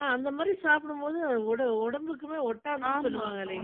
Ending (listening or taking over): taking over